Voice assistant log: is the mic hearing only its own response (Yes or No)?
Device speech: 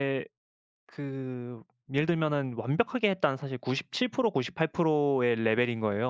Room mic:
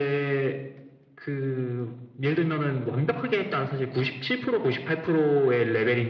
Yes